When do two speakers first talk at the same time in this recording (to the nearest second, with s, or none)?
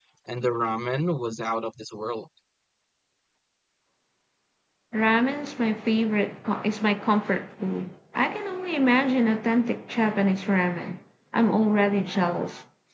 none